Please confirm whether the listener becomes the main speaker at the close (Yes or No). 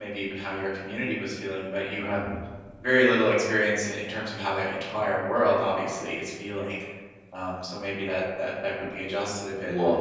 Yes